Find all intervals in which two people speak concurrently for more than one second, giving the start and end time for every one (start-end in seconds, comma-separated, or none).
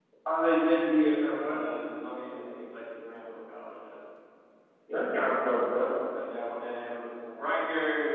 none